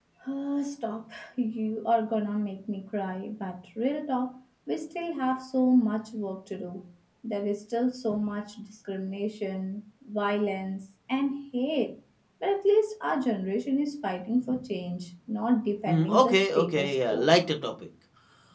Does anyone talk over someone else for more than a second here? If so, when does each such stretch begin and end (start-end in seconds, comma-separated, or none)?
15.8-17.3